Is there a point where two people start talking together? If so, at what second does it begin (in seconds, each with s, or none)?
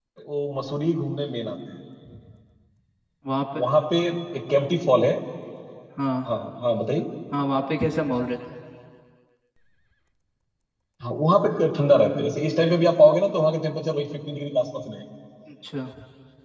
none